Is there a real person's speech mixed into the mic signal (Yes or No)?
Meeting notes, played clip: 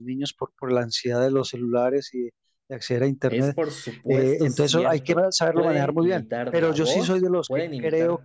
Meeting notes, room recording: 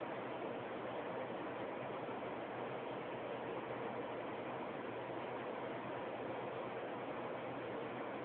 No